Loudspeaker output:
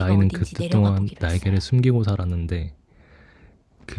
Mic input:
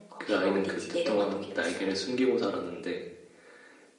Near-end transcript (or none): none